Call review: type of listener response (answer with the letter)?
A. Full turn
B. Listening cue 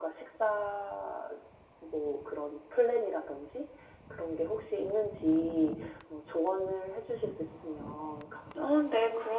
A